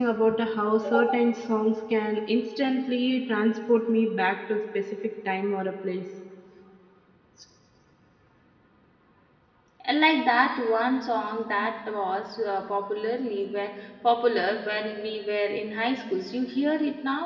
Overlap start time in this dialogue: none

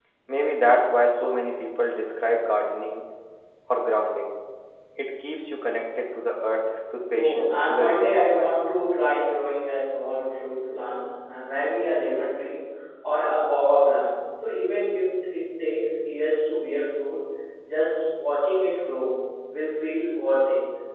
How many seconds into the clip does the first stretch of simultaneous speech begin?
7.1 s

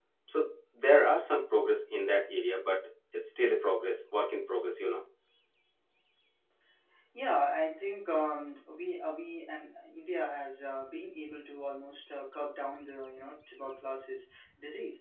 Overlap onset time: none

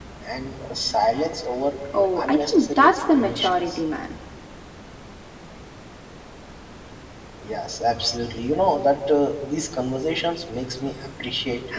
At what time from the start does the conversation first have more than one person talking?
1.9 s

